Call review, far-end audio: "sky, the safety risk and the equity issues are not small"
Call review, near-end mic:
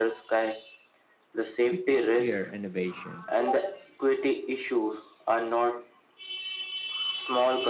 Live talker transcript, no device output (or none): we can't fear innovation.